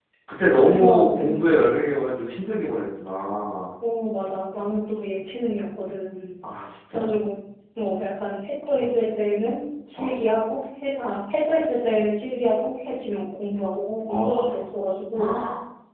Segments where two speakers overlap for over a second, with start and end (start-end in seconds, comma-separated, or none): 0.6-1.8